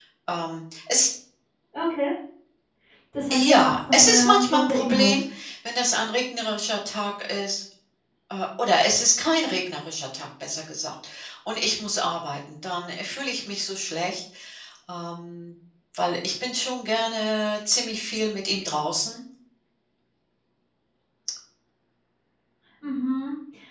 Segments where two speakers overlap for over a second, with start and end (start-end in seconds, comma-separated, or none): 3.3-5.2